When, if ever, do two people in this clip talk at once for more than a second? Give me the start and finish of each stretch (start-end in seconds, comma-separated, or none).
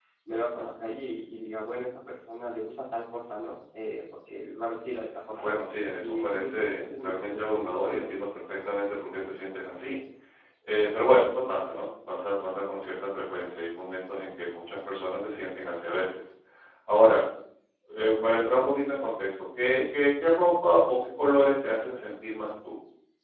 6.0-8.2